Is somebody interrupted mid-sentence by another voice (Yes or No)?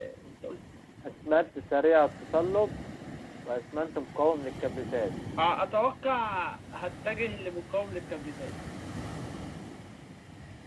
No